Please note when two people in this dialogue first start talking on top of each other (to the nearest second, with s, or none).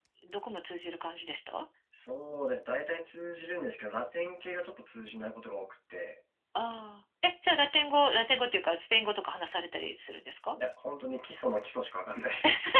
none